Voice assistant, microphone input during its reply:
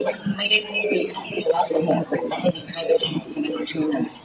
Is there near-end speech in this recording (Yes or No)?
No